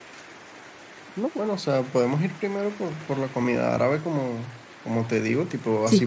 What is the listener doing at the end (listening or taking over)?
listening